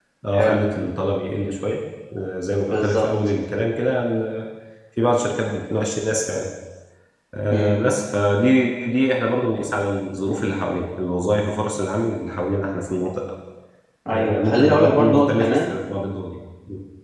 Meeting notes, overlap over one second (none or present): present